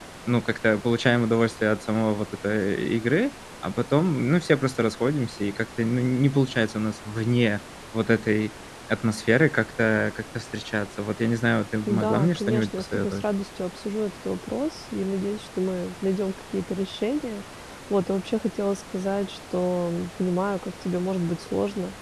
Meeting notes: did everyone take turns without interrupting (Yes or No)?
No